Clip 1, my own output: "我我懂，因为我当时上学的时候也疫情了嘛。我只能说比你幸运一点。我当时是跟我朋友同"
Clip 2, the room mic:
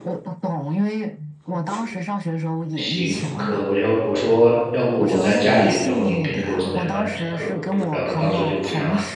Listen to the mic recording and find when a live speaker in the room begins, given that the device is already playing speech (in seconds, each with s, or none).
2.8 s